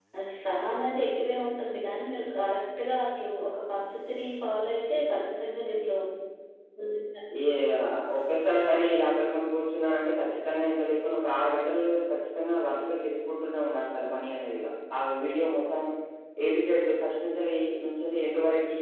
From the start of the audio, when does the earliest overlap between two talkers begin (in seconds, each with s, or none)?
none